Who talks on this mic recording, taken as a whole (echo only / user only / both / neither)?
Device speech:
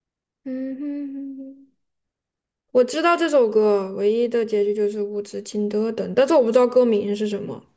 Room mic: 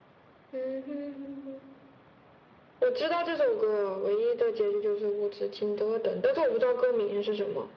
echo only